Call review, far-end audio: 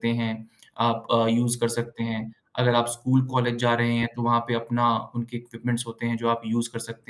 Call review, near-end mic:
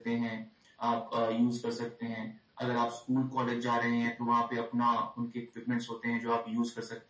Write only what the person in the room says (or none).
none